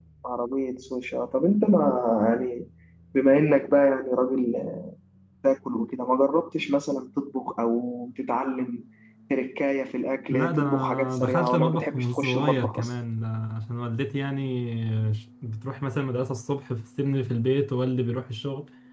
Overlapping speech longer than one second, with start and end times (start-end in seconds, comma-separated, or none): 10.3-12.9